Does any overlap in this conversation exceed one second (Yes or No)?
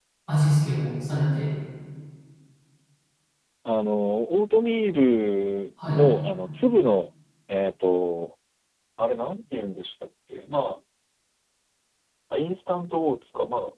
No